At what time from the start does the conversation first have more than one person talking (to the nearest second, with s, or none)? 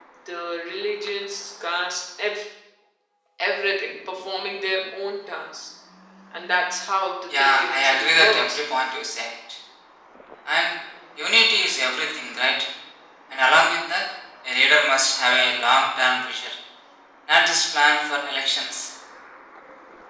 7 s